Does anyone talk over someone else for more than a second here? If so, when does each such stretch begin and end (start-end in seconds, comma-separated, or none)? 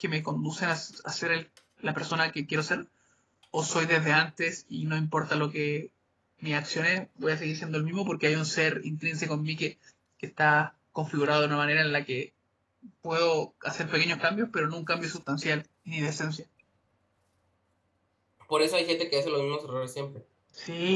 none